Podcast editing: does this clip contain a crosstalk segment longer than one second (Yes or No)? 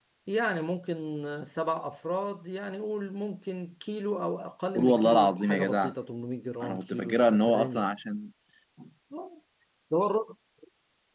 Yes